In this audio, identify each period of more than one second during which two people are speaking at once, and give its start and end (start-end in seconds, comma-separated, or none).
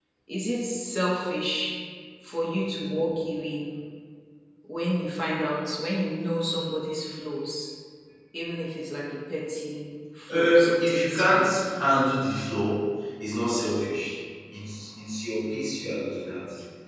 10.3-11.5